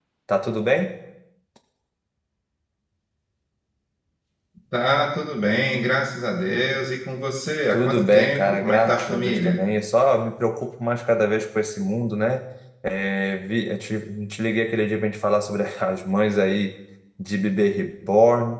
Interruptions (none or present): present